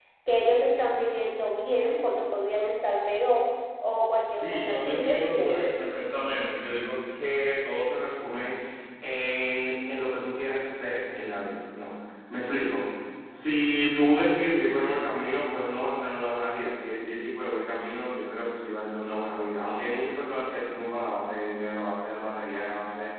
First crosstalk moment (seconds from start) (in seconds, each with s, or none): 4.3 s